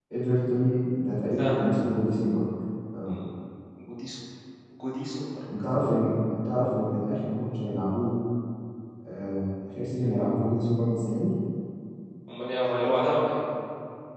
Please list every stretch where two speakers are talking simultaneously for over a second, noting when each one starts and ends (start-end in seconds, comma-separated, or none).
none